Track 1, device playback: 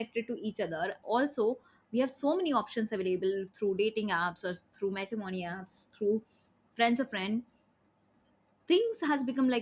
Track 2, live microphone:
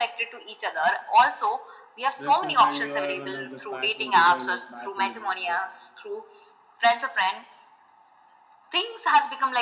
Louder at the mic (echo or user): echo